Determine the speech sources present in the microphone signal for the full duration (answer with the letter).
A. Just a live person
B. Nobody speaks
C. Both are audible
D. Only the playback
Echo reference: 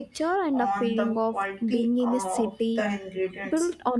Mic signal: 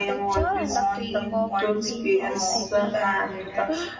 C